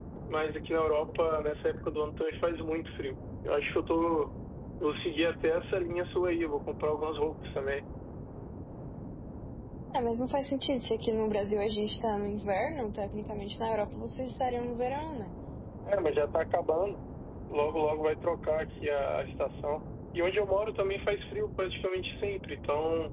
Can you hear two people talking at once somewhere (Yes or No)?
No